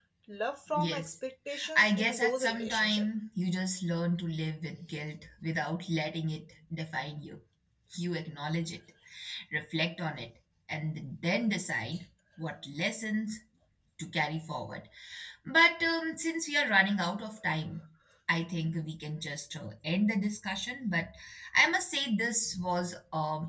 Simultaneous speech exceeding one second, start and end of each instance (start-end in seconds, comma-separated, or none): 1.8-3.1